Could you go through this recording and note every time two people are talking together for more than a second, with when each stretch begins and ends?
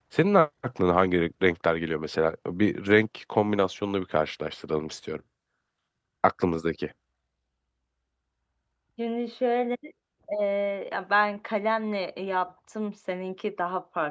none

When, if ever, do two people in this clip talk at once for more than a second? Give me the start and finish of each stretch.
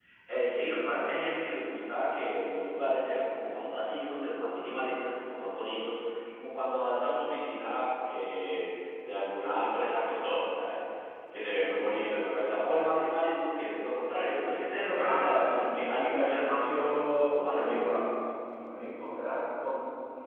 14.9-18.1

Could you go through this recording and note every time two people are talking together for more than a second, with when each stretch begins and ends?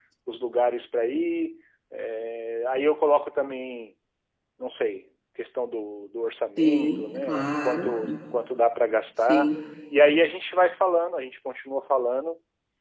6.6-7.9

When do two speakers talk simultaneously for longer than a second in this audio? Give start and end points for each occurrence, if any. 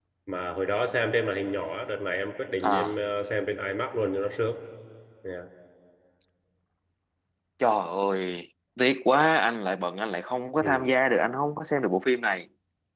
none

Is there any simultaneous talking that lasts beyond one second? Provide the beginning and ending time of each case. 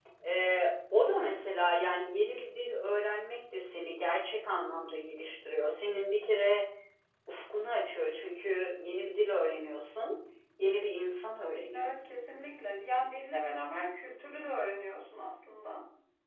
none

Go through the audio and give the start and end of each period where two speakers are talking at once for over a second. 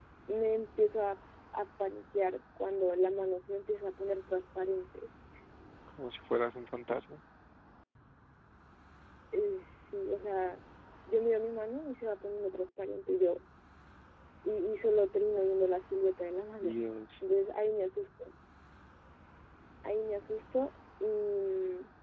none

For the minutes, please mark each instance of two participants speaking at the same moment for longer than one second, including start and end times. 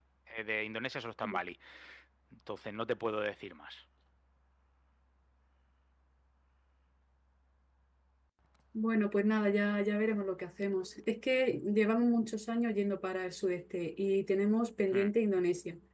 none

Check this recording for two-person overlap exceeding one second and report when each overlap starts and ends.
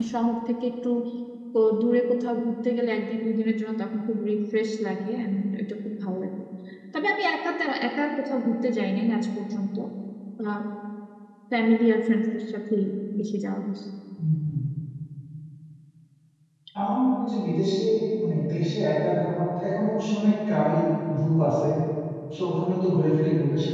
none

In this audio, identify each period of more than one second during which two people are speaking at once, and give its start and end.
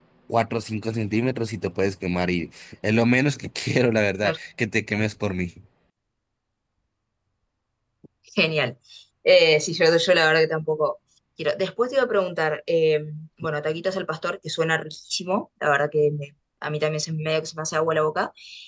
none

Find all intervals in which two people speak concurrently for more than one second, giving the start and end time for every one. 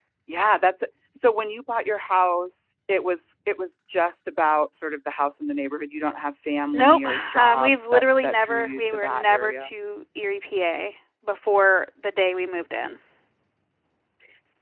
6.7-9.7

